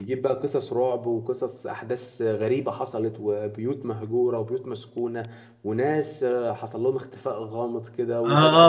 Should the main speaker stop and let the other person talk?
Yes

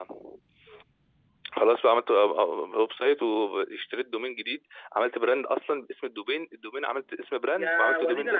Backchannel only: No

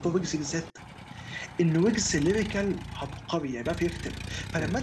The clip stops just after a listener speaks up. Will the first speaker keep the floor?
Yes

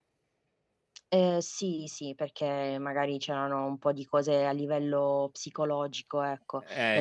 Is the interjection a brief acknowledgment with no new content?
Yes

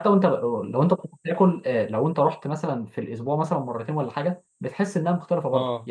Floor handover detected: No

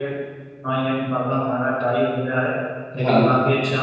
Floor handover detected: No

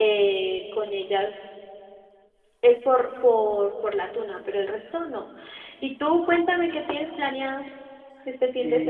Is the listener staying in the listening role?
No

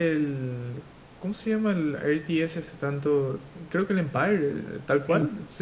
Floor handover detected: Yes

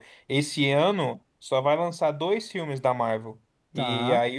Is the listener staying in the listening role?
Yes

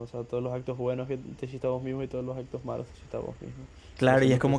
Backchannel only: No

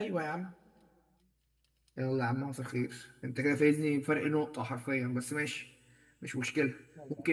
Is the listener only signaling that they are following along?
Yes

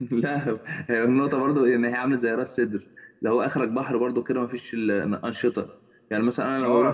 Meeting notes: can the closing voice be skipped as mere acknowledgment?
No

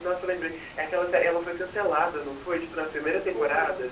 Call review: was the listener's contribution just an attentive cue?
No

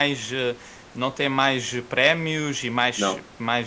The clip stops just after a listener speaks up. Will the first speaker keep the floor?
Yes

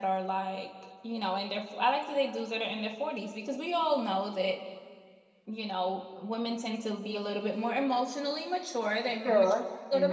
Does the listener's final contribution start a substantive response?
No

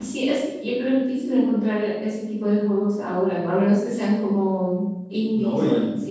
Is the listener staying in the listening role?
No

